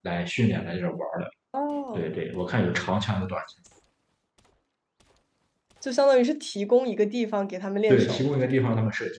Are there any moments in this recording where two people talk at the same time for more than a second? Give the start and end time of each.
none

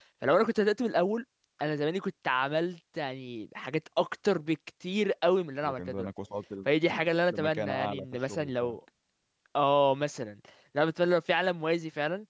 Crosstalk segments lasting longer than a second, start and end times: 7.3-8.8

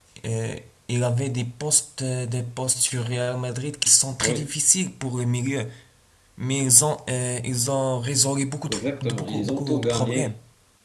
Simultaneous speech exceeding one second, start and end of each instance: 8.7-10.3

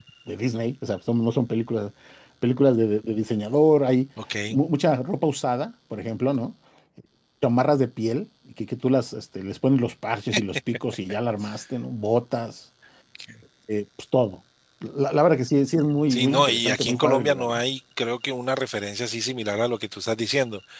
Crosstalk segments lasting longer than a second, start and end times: 16.1-17.6

